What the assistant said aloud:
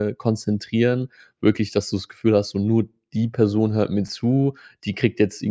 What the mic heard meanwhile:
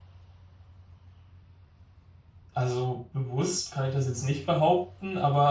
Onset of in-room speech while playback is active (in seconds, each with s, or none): 2.5 s